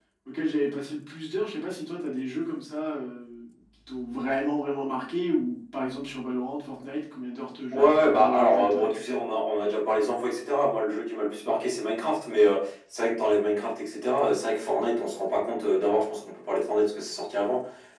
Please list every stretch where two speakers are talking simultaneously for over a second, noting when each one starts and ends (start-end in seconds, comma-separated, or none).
7.7-9.2